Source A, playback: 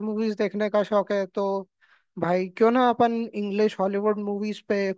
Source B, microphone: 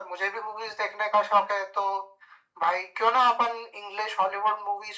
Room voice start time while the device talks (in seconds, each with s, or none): none